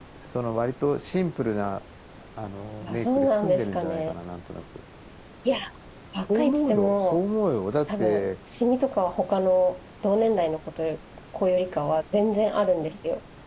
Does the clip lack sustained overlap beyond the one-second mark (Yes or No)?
No